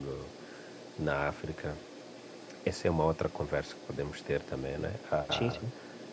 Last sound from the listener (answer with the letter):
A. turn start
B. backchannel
B